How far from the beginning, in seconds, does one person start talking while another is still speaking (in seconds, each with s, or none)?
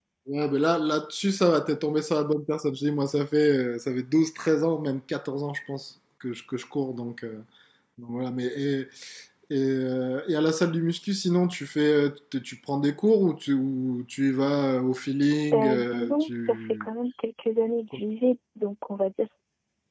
15.5 s